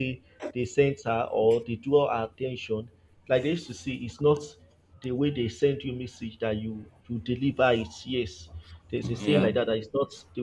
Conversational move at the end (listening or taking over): listening